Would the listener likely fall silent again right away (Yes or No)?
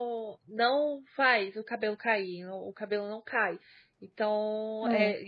Yes